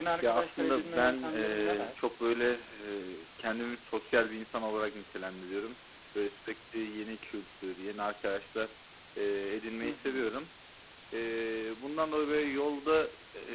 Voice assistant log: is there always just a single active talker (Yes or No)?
No